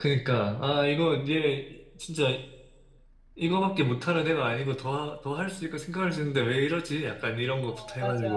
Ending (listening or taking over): taking over